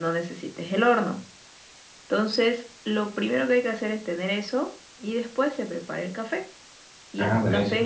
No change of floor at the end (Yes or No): Yes